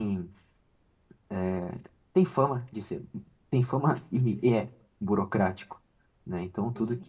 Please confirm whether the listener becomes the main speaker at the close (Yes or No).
Yes